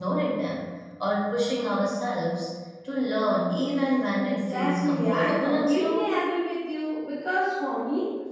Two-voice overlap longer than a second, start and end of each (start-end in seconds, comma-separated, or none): 4.2-6.1